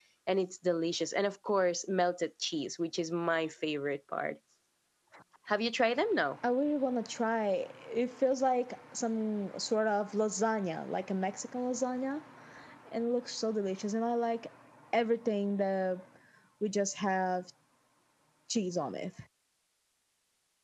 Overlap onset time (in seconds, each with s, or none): none